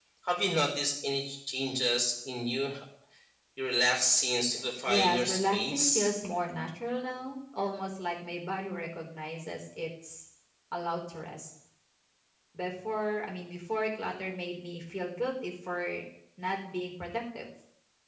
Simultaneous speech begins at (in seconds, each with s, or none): 4.9 s